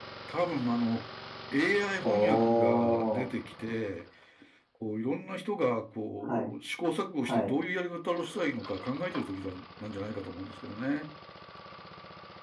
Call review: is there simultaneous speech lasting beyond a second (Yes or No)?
Yes